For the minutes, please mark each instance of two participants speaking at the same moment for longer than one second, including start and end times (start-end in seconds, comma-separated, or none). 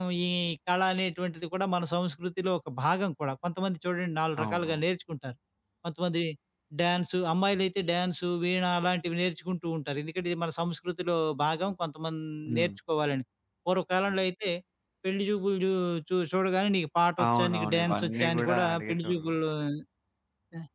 17.2-19.3